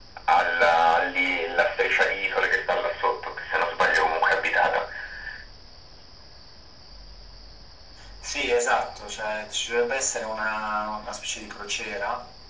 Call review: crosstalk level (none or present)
none